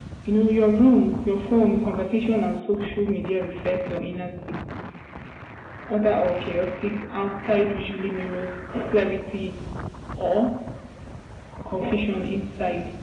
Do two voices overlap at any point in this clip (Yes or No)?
No